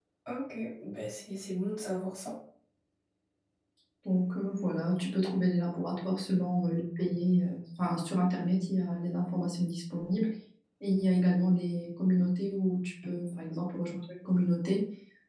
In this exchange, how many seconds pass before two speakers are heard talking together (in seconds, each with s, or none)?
none